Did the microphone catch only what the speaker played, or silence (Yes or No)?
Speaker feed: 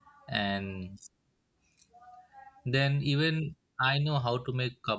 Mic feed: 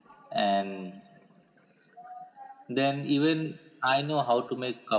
Yes